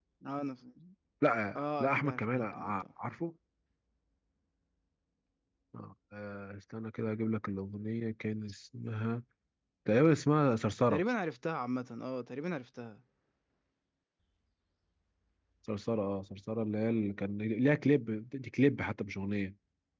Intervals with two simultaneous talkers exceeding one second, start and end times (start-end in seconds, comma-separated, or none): 1.6-2.8